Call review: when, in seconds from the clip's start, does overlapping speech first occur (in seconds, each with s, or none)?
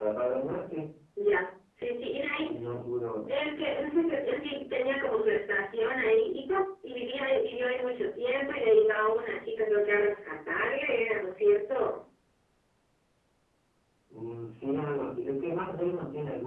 none